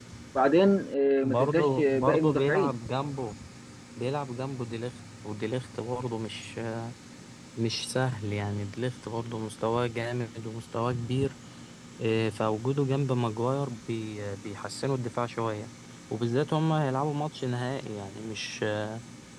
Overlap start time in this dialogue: 1.2 s

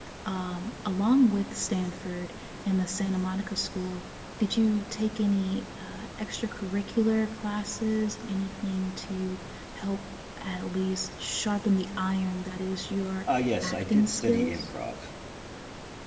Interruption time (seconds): 13.3 s

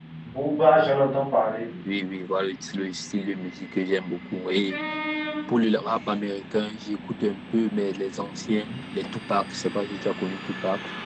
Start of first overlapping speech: none

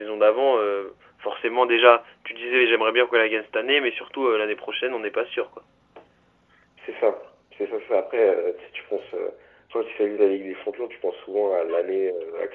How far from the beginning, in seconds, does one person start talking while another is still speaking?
none

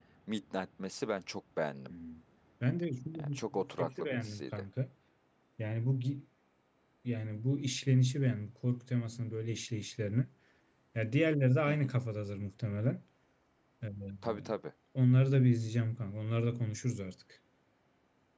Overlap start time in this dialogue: 3.2 s

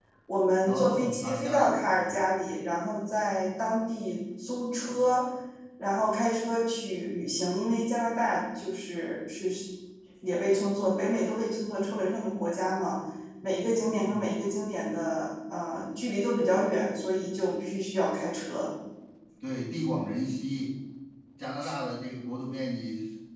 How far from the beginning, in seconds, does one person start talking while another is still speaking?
0.7 s

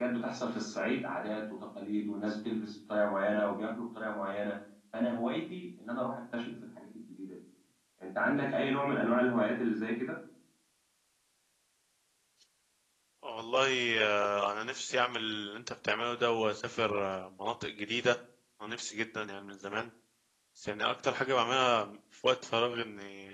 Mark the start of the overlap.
none

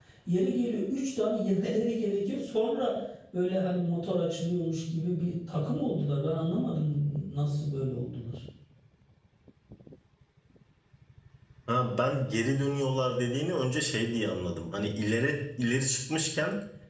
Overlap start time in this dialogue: none

